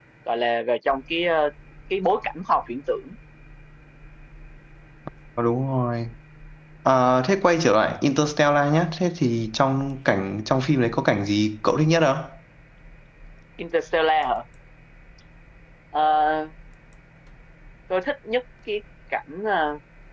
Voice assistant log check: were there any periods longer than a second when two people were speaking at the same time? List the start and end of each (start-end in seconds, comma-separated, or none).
none